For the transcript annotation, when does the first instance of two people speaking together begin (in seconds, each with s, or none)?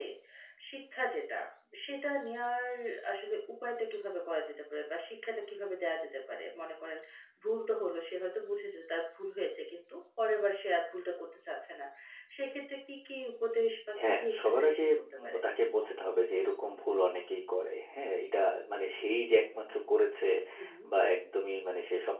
14.0 s